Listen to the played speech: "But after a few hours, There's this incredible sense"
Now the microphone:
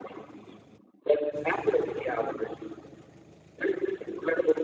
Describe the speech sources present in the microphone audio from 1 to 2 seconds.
echo only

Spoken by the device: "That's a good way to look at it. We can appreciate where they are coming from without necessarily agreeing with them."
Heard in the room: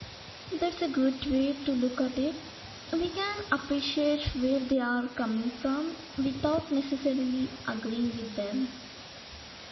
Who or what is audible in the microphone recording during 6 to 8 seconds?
echo only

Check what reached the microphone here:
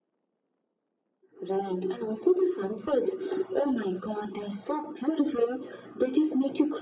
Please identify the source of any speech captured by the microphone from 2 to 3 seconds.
echo only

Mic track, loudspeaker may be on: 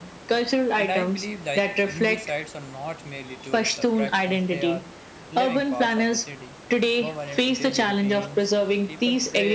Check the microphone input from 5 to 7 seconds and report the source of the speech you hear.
both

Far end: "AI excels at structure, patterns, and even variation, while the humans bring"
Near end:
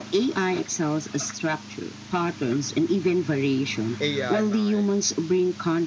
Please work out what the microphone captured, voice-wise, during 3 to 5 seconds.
both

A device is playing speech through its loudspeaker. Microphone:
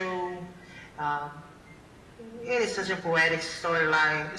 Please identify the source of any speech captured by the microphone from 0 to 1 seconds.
echo only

